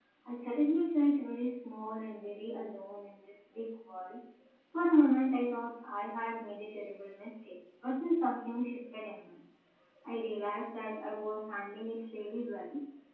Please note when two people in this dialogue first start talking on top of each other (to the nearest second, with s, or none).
none